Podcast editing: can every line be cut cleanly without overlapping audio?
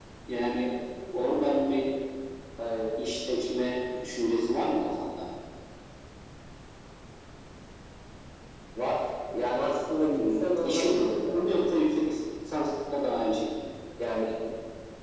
No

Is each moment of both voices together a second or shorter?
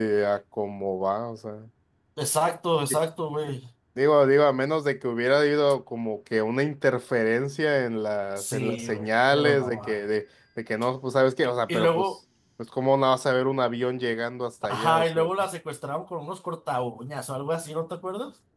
No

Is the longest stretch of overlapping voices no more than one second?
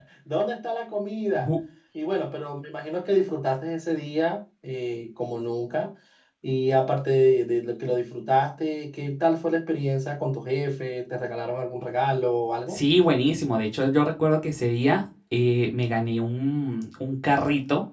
Yes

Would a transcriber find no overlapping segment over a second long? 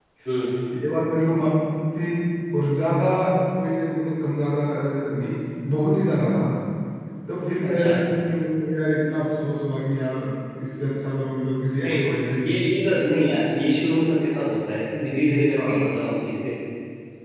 Yes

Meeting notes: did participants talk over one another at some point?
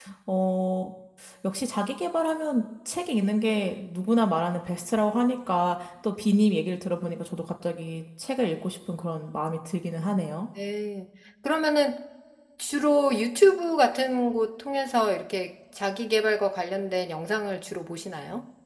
No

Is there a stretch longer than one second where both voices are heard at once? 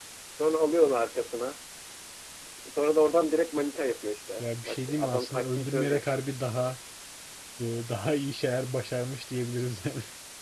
Yes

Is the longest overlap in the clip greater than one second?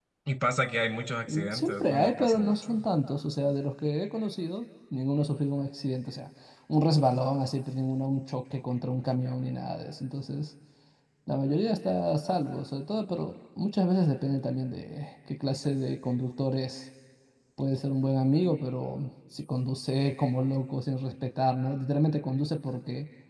Yes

